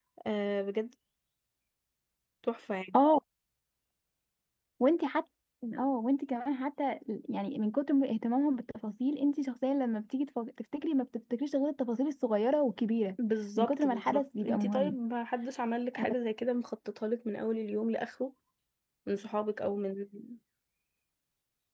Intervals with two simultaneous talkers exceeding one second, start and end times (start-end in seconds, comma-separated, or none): 13.6-14.9